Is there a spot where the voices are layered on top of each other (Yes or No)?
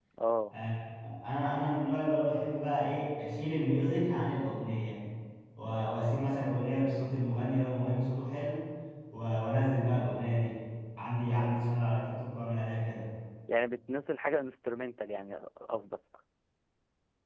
No